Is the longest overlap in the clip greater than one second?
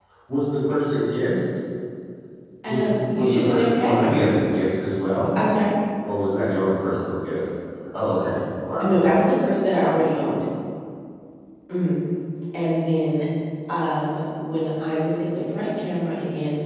Yes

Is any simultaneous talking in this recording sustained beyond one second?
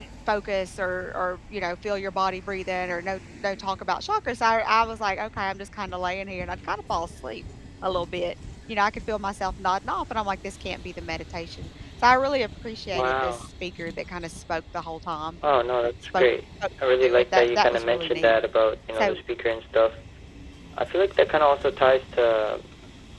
Yes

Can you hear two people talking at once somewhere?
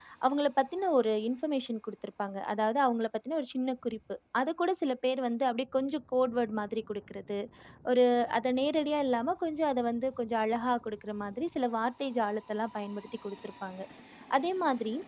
No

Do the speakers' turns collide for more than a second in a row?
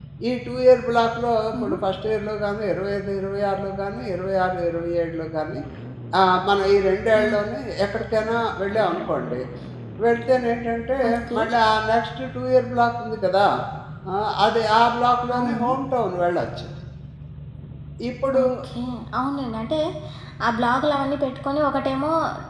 No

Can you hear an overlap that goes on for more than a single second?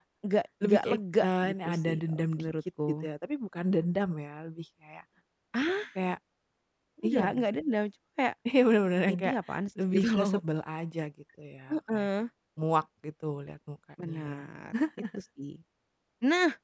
Yes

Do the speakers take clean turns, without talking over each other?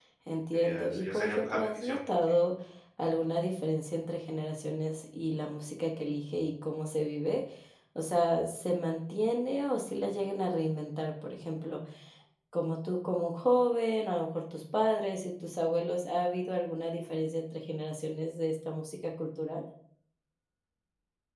No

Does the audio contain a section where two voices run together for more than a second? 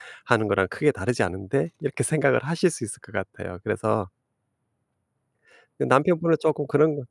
No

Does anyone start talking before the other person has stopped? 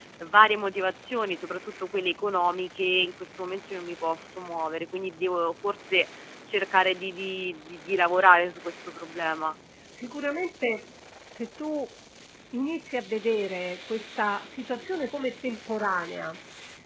No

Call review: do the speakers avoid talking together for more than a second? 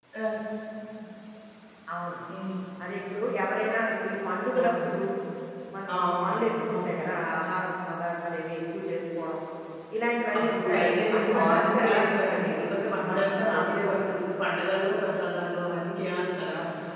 No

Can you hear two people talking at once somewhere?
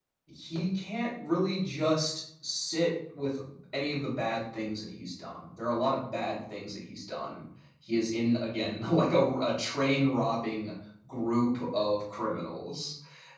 No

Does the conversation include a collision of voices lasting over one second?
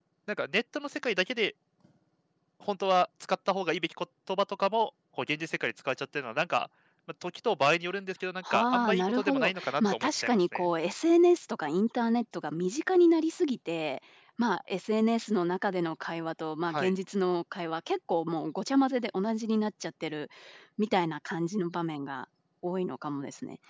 Yes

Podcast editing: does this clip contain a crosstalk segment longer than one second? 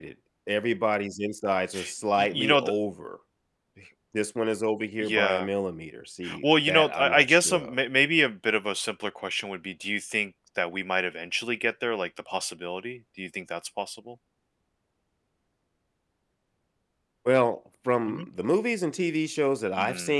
Yes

